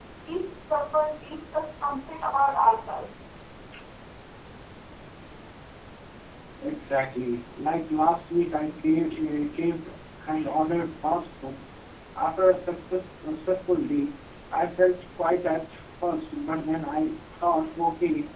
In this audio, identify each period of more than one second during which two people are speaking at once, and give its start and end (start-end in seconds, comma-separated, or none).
none